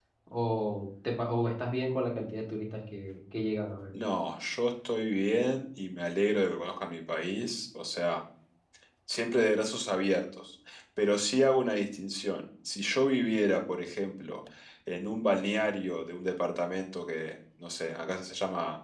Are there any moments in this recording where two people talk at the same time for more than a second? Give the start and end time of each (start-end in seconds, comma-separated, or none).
none